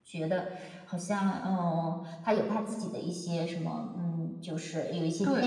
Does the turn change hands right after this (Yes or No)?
Yes